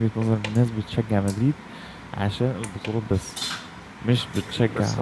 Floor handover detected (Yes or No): No